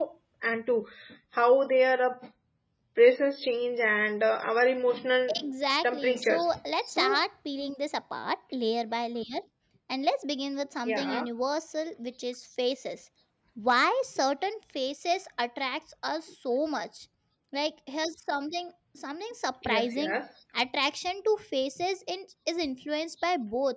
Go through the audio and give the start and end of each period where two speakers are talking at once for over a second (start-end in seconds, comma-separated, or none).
5.8-7.2